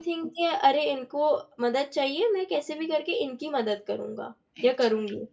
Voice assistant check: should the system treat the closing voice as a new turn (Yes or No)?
Yes